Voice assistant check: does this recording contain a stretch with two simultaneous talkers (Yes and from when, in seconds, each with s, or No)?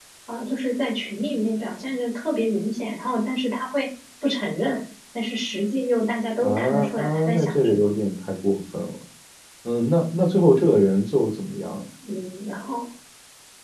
Yes, from 6.4 s